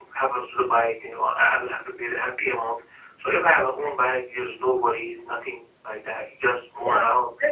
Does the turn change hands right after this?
Yes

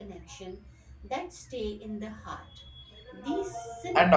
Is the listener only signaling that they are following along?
No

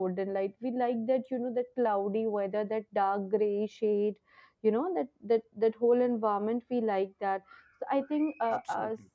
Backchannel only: Yes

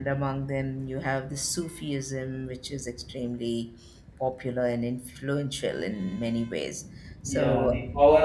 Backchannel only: No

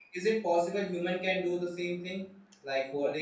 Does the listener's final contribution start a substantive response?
No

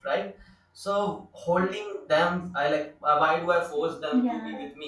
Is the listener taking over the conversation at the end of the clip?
No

